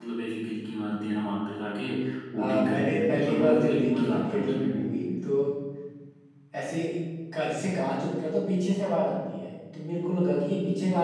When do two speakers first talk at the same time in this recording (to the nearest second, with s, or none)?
2 s